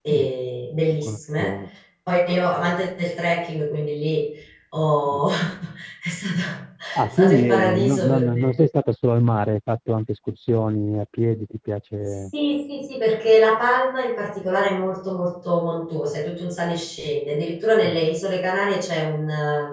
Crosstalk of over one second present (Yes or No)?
Yes